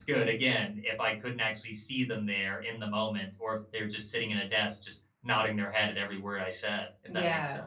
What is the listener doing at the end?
taking over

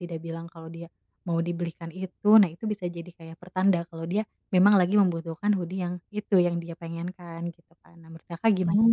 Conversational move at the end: taking over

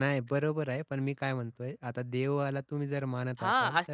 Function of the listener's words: taking over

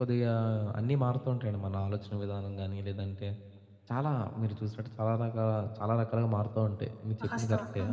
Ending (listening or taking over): taking over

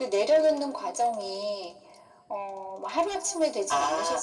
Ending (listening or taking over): taking over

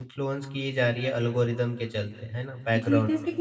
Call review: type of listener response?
taking over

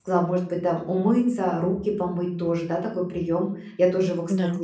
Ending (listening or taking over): listening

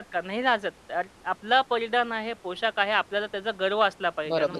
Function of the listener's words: taking over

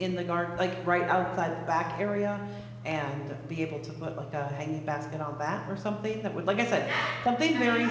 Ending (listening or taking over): taking over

